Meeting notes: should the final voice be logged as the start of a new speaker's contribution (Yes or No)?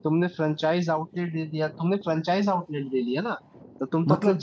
No